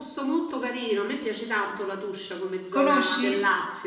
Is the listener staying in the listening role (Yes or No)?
Yes